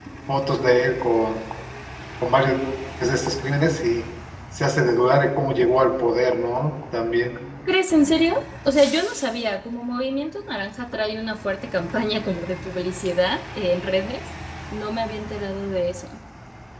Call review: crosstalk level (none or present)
none